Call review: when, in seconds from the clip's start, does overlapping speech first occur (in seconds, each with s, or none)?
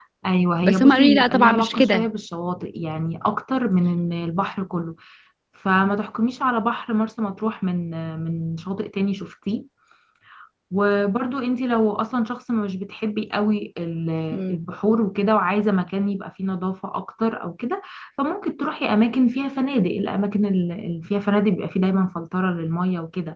0.6 s